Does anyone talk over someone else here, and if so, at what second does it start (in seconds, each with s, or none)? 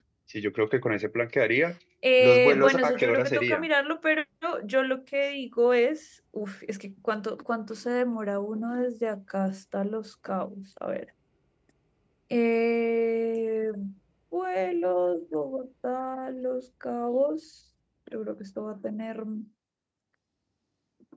2.2 s